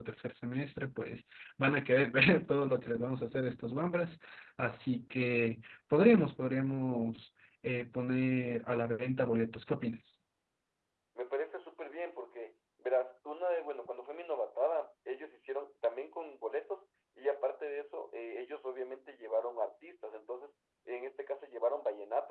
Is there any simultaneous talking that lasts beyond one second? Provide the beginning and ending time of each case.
none

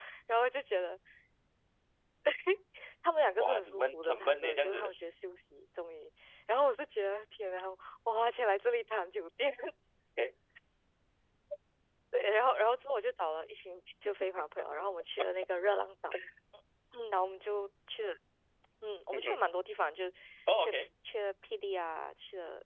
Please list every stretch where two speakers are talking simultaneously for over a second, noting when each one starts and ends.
3.4-5.0

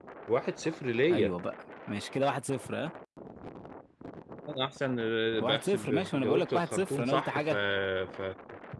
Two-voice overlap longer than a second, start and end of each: 5.4-7.5

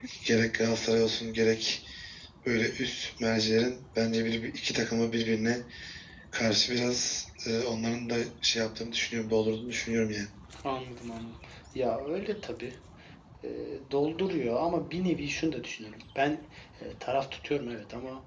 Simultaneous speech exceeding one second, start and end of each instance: none

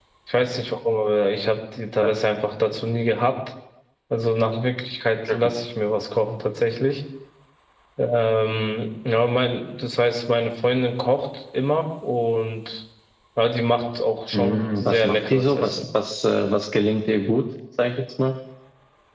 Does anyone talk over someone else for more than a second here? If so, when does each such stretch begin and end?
14.3-15.8

